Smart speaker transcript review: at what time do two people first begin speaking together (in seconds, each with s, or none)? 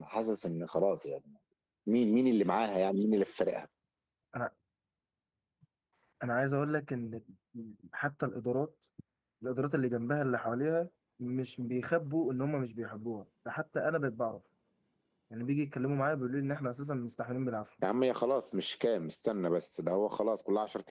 none